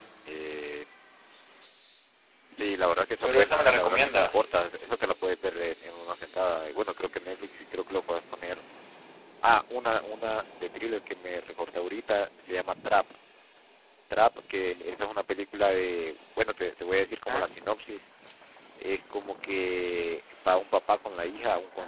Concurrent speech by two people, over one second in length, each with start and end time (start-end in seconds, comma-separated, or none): 3.2-4.5